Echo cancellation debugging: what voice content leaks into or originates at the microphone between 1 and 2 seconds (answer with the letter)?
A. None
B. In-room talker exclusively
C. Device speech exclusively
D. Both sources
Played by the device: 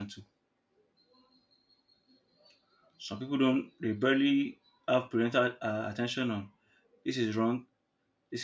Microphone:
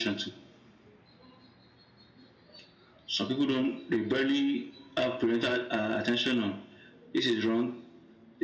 A